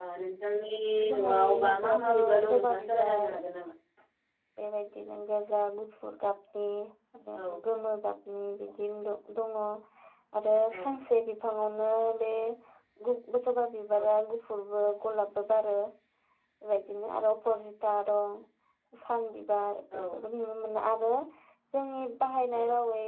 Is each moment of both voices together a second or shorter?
No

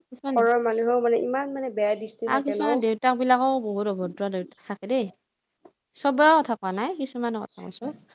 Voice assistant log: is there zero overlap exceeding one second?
Yes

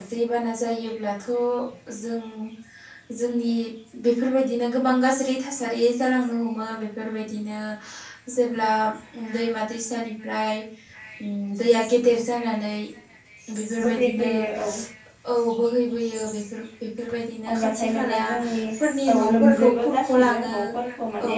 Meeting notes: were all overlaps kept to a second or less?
No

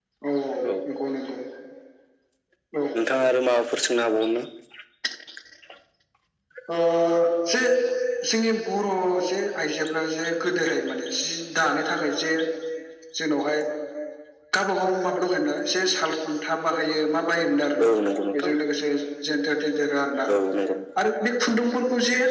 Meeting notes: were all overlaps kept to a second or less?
Yes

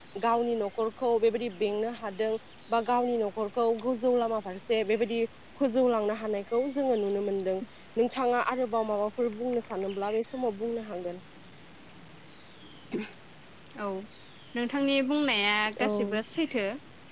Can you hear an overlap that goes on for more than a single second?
No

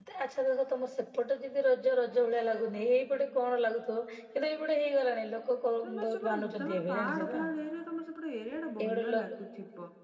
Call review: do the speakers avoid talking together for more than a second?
No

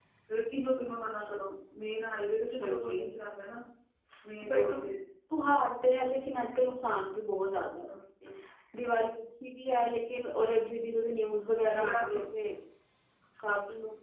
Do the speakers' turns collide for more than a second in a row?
No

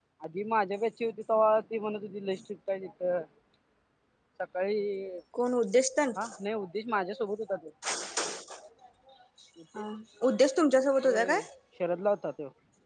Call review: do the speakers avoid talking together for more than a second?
Yes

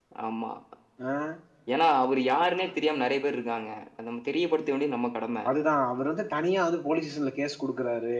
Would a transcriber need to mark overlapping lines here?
No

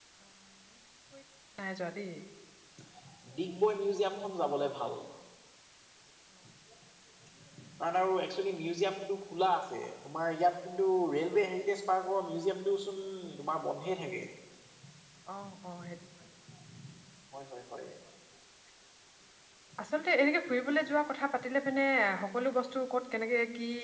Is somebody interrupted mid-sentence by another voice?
No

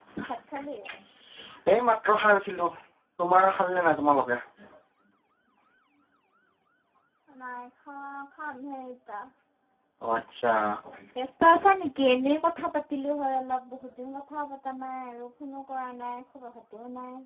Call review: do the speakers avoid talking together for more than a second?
Yes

